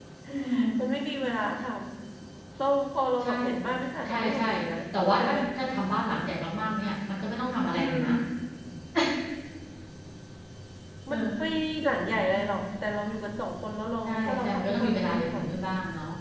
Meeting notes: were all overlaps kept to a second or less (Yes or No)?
No